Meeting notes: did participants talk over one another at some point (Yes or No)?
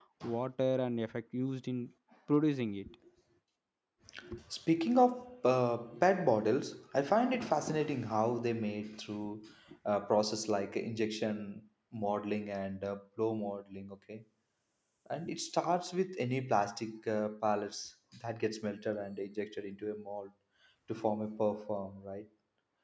No